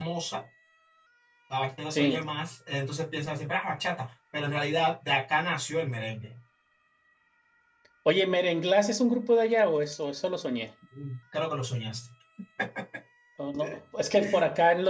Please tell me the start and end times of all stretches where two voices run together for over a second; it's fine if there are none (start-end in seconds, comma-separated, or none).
none